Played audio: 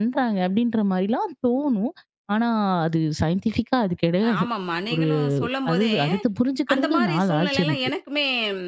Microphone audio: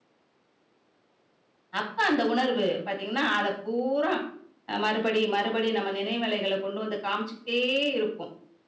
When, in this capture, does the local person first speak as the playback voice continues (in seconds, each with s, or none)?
1.8 s